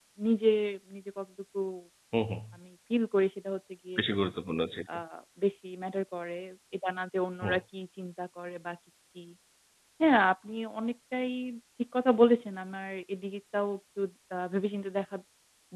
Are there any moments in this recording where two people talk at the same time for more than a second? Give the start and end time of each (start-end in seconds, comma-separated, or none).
none